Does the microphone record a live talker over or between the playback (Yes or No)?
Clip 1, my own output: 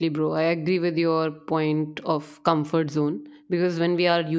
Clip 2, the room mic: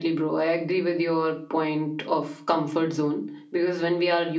No